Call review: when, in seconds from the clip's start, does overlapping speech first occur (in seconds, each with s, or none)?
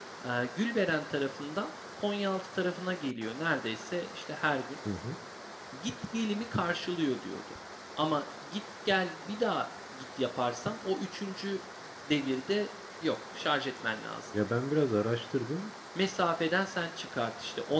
none